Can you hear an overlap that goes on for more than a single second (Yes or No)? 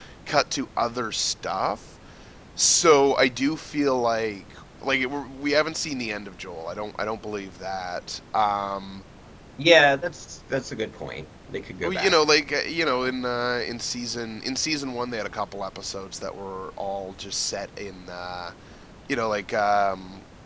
No